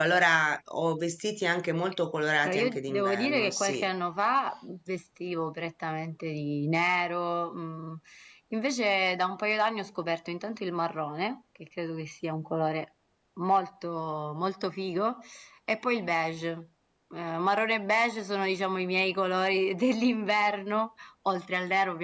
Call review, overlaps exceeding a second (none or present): present